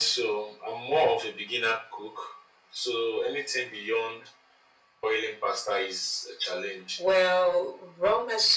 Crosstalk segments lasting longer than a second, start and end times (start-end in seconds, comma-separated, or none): none